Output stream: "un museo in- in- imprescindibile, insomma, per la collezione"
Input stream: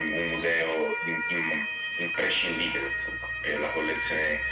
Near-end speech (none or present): none